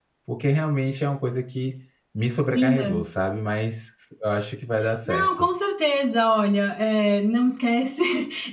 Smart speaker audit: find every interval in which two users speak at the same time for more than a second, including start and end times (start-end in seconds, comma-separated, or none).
none